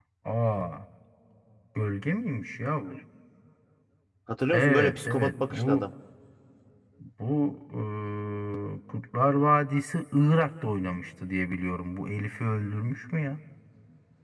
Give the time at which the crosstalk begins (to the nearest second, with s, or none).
5 s